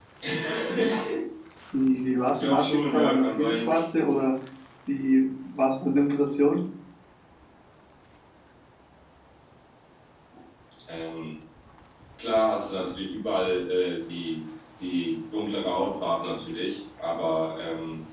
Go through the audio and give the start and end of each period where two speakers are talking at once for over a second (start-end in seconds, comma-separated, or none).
2.4-3.7